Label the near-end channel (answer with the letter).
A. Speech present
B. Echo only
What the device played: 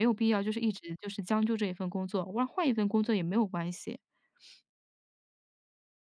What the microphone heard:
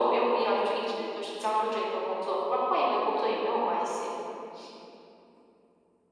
B